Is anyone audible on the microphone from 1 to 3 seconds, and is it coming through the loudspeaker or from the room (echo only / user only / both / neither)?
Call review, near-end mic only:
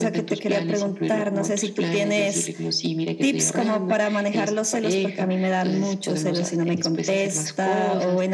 echo only